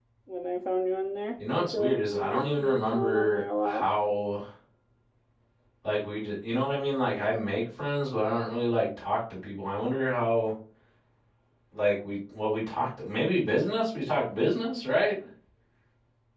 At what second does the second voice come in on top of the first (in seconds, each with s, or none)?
1.4 s